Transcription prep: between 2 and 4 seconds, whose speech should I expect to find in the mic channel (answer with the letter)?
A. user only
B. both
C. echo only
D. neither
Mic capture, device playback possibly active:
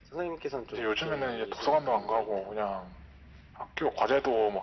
C